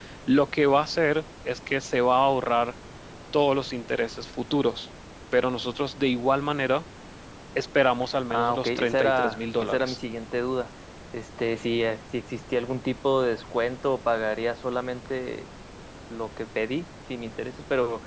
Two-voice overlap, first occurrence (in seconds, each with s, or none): 8.3 s